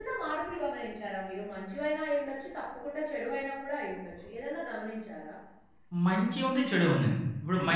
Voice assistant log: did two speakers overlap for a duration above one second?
No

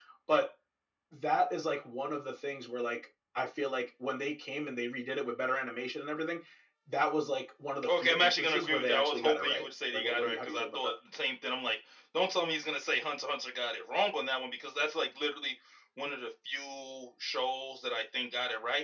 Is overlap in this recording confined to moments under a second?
No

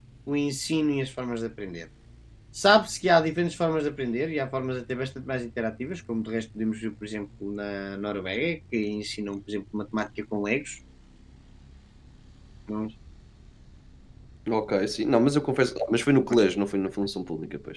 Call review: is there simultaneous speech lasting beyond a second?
No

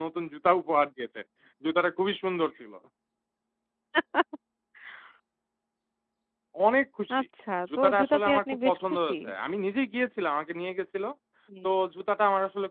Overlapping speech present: Yes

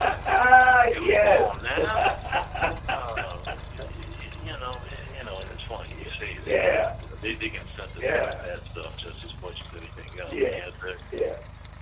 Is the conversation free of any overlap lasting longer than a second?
Yes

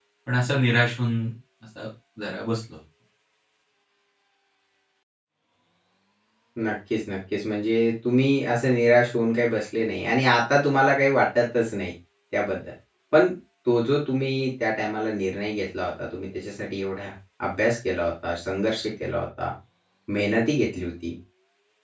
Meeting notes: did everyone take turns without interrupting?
Yes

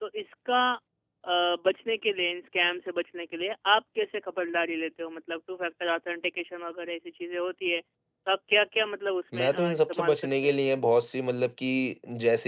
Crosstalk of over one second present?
Yes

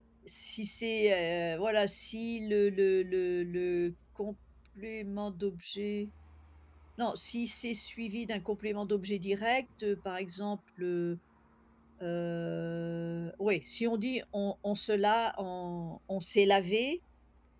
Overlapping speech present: No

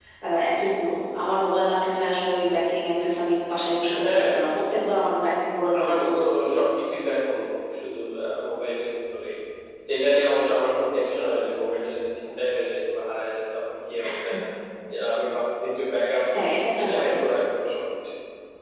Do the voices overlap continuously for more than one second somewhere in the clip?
No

